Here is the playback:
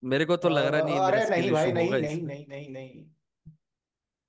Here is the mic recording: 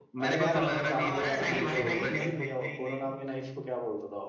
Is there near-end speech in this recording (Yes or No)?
Yes